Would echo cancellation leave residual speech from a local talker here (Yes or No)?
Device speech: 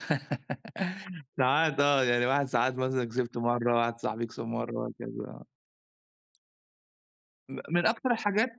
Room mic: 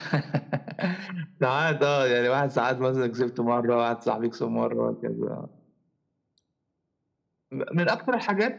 No